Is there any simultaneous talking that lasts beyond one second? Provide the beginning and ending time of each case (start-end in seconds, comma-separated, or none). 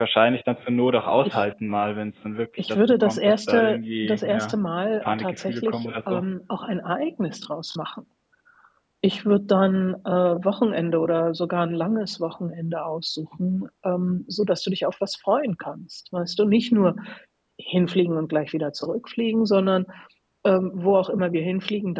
2.7-4.5, 5.0-6.2